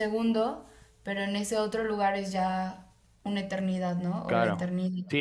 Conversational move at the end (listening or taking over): taking over